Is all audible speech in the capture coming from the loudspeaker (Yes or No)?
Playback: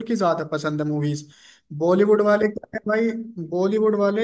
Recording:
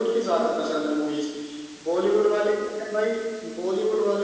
Yes